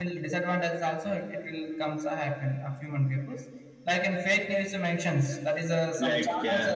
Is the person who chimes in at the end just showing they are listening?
Yes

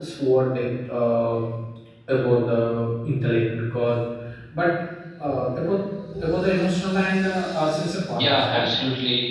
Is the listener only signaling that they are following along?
No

